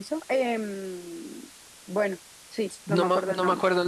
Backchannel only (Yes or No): No